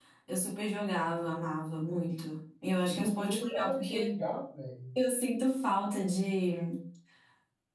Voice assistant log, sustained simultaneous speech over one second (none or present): present